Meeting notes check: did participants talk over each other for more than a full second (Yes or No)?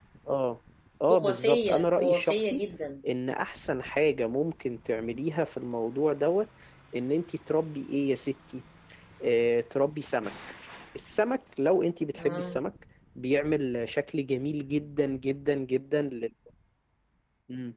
Yes